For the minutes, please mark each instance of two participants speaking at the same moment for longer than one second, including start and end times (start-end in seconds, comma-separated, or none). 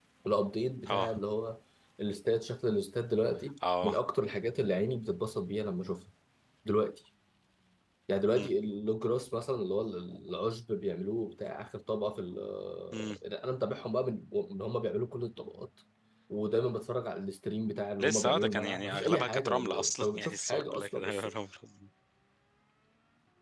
18.0-21.3